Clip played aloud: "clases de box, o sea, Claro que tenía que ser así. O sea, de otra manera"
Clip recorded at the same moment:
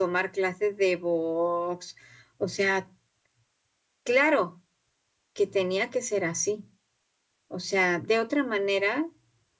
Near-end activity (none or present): none